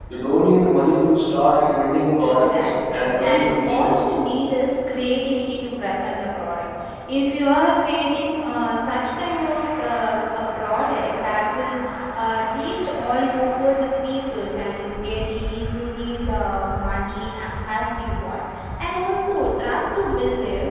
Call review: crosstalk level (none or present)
present